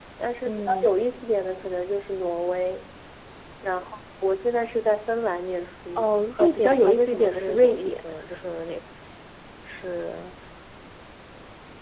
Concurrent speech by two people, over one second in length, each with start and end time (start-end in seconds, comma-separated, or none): 6.0-8.0